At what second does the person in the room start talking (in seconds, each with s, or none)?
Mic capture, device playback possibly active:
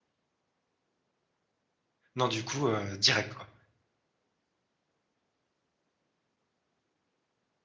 2.2 s